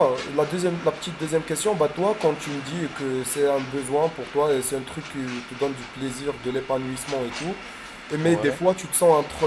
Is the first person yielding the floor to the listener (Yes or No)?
No